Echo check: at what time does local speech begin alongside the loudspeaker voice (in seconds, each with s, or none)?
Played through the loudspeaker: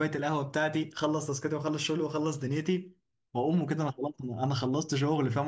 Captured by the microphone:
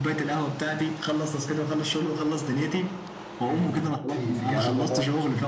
3.4 s